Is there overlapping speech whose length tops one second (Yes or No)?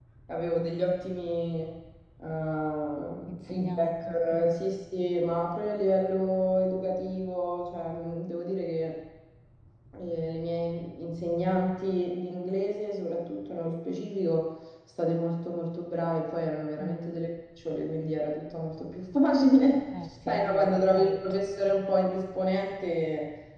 Yes